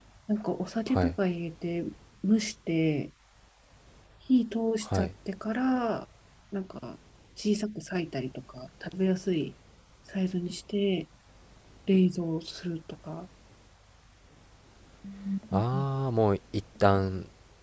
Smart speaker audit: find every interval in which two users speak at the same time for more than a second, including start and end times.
none

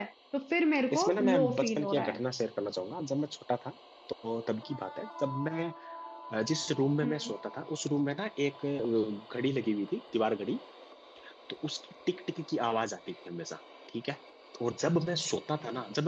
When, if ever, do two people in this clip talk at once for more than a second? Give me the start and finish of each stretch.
0.9-2.2

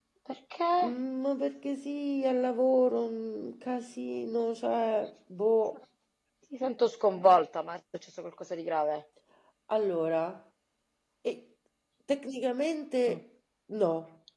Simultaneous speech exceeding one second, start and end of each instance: none

